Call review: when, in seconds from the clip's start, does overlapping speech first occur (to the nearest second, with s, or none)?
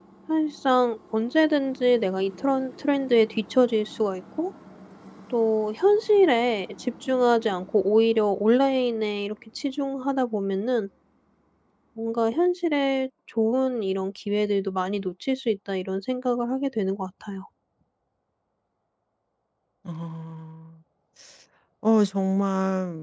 none